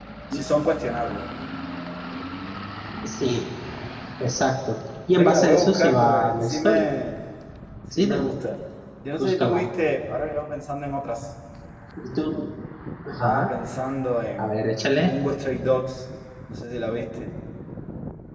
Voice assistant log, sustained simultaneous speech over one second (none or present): present